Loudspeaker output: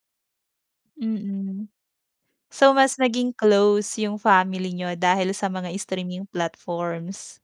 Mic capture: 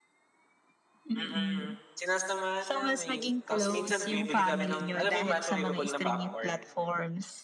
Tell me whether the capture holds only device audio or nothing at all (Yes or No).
No